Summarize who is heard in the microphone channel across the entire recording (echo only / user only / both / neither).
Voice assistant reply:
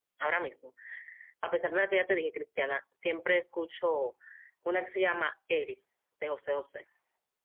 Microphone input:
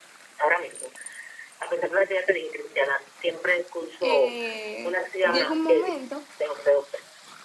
both